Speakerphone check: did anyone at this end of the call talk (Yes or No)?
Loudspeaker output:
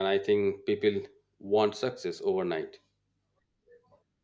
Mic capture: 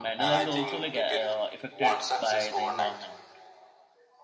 Yes